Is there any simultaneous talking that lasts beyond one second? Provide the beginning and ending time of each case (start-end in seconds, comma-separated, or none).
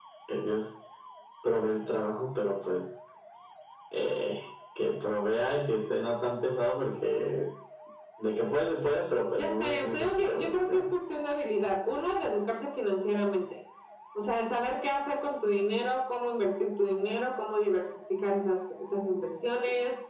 9.3-10.9